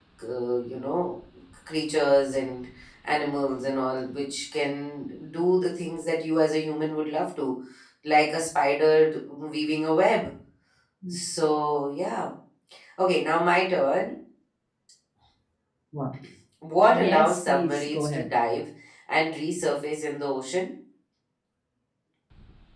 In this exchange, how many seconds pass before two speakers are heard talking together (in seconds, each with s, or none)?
16.9 s